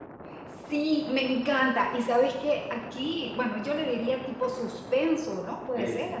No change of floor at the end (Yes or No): Yes